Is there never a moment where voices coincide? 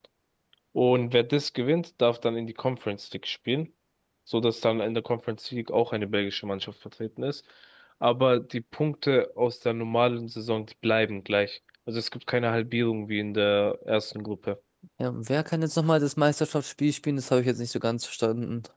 Yes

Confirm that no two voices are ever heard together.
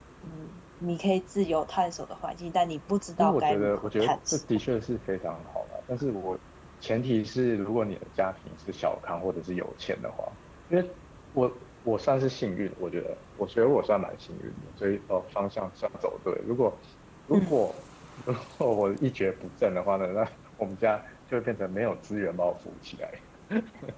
No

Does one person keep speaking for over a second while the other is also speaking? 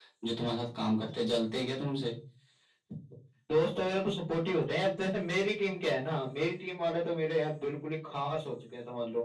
No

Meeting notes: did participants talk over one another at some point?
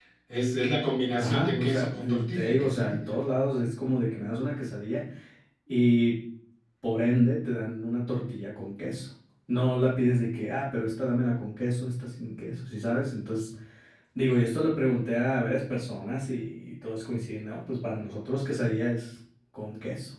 Yes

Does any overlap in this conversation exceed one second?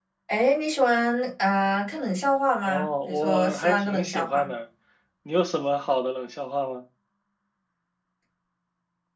Yes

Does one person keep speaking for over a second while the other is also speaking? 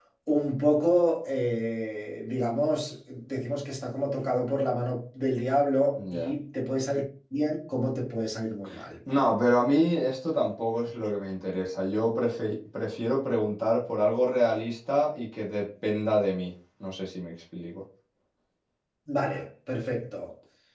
No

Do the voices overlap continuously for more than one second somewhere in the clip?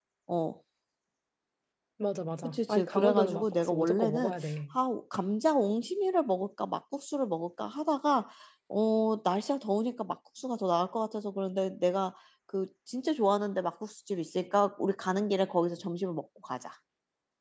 Yes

